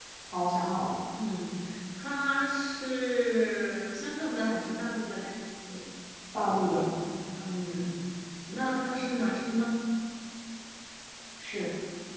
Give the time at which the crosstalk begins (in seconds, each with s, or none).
none